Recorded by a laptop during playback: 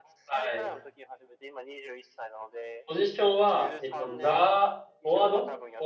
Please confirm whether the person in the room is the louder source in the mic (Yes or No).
Yes